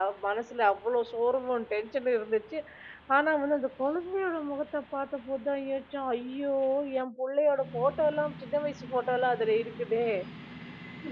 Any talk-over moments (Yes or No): No